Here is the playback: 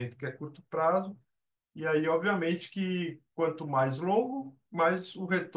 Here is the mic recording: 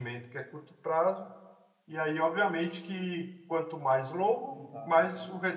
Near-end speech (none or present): present